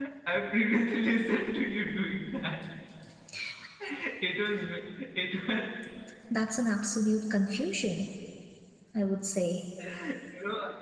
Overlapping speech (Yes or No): No